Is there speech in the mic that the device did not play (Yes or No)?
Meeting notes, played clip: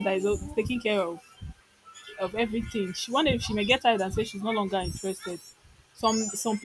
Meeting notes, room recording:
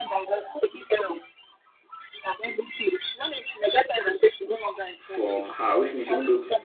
Yes